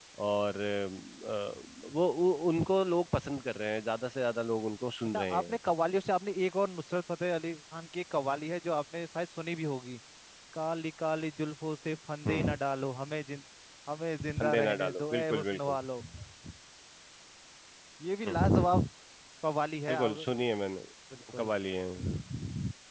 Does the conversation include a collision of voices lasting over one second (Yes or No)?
Yes